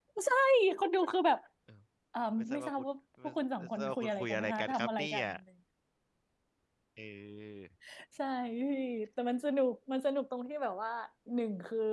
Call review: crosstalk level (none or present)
present